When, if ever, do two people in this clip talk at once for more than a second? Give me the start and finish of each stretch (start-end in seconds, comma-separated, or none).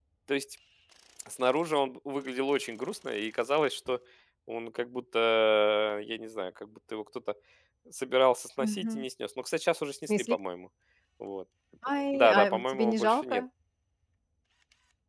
12.1-13.4